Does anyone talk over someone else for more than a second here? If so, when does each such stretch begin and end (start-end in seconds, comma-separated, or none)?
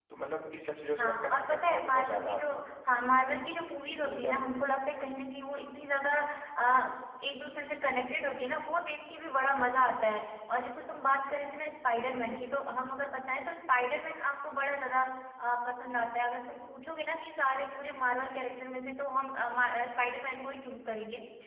1.0-2.4